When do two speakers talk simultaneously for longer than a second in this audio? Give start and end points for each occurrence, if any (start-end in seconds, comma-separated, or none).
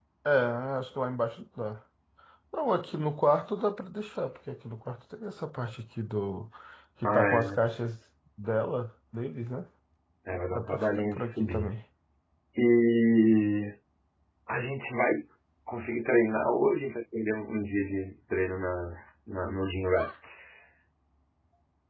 10.5-11.7